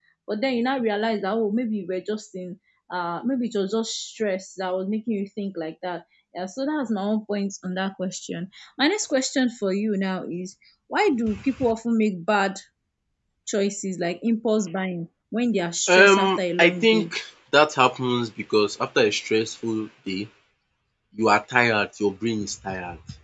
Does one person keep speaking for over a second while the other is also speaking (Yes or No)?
Yes